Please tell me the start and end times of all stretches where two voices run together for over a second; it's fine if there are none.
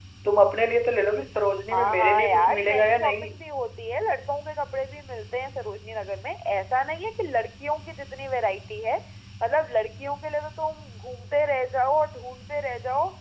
1.7-3.3

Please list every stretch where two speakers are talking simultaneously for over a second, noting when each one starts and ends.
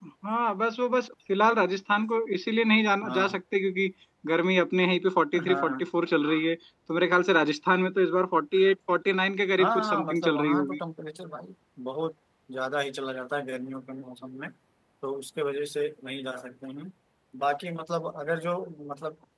9.6-10.8

